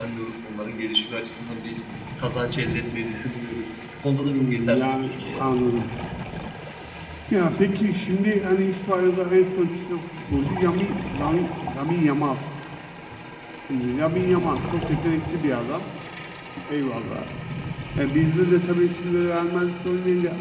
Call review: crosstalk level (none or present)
present